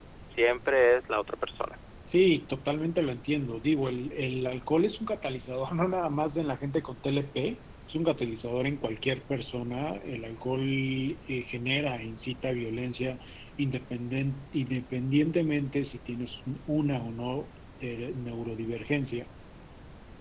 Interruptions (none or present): none